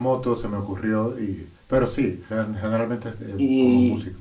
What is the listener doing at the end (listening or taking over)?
taking over